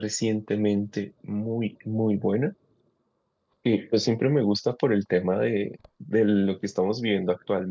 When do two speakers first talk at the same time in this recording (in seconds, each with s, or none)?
none